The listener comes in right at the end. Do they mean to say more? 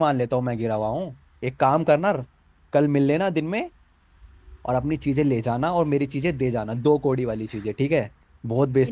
Yes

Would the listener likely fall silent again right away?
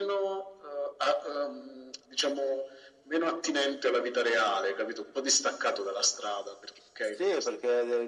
No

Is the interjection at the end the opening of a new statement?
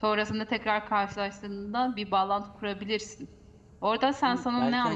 Yes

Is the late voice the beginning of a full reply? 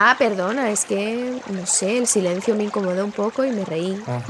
No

